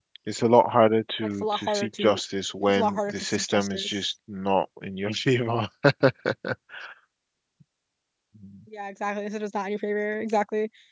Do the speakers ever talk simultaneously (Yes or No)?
Yes